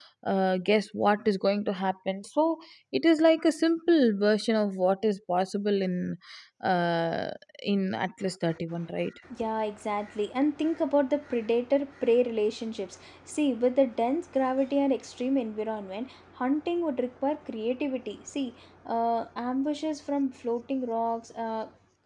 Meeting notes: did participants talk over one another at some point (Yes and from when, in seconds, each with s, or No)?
No